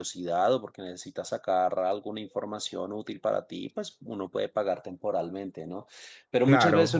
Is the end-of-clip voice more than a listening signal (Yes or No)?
No